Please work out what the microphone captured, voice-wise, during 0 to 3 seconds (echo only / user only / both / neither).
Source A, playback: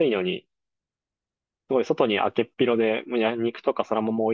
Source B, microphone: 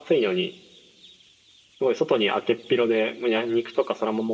echo only